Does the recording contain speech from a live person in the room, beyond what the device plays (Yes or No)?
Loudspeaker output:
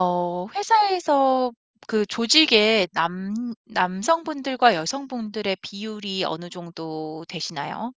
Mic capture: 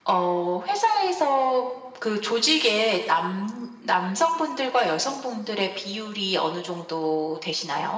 No